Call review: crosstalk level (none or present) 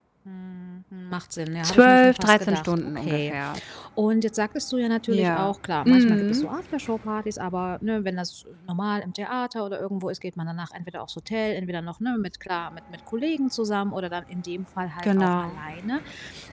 present